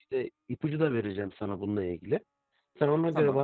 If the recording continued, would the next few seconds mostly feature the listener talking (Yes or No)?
No